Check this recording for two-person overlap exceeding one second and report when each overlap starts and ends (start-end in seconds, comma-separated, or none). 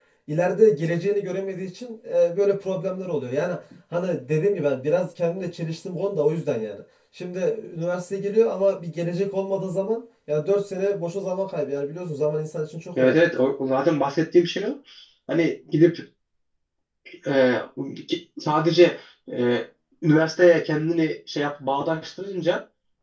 none